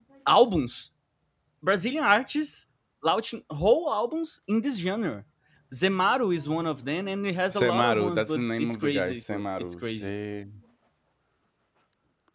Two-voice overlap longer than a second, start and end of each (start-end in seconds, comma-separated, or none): 7.5-10.1